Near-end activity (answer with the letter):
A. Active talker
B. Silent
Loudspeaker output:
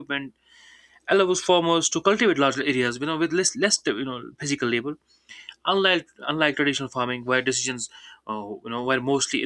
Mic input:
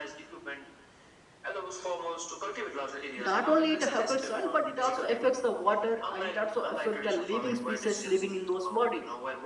A